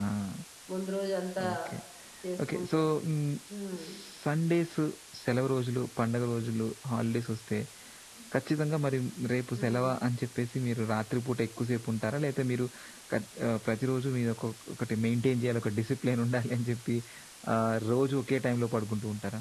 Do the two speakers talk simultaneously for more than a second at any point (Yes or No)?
No